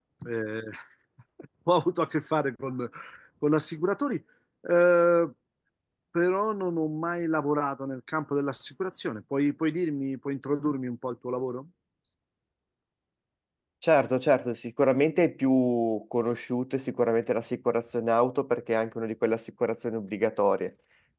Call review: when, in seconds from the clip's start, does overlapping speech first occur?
none

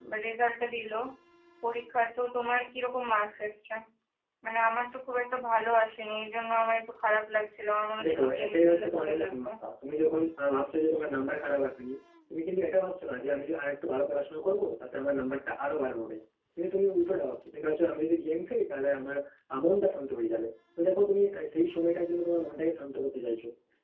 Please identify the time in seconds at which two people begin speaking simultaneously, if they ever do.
8 s

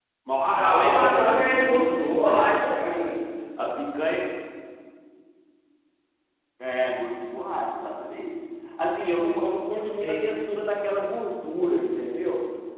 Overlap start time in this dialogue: 1 s

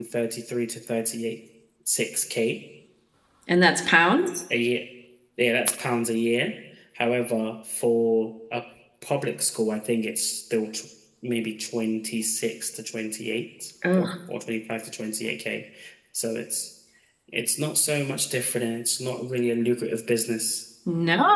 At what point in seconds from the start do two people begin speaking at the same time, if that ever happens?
none

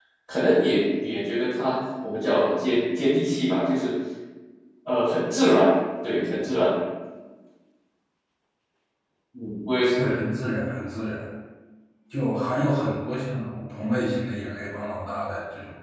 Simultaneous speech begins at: none

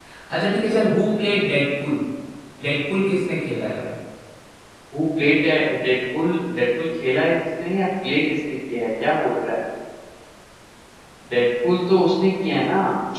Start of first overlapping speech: none

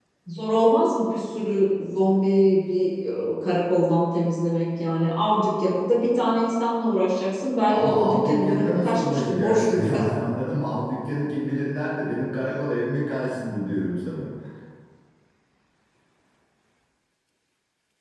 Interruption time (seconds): 8 s

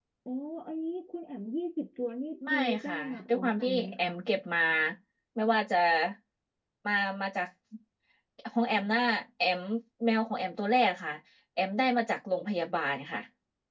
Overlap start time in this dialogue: 2 s

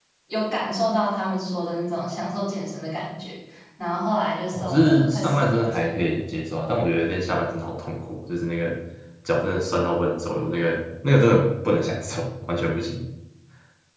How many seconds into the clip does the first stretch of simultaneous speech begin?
5 s

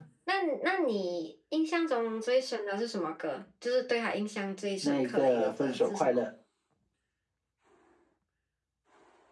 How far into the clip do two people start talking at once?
5 s

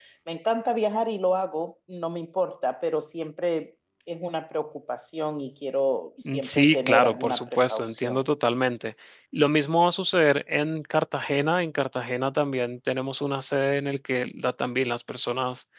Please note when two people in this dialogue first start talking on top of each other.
6 s

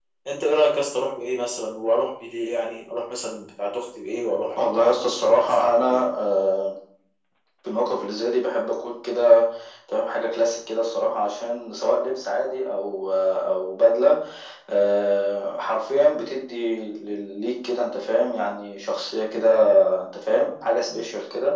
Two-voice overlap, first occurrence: 5 s

